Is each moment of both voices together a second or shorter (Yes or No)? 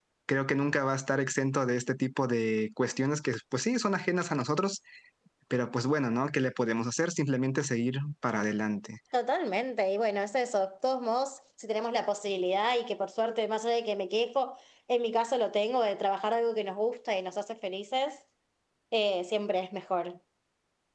Yes